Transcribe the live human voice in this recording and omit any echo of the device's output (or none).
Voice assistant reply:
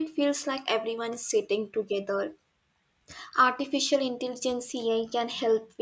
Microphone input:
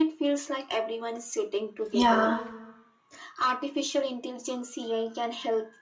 Yeah.